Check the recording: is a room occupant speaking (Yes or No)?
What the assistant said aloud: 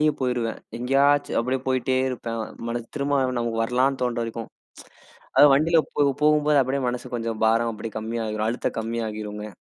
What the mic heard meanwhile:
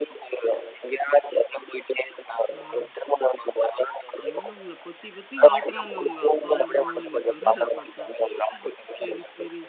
Yes